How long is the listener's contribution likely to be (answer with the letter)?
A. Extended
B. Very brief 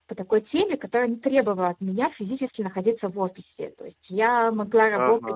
B